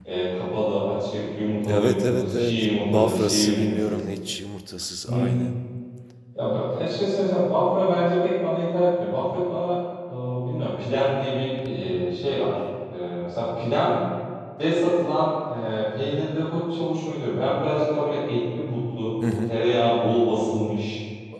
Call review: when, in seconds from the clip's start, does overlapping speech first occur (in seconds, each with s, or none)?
1.7 s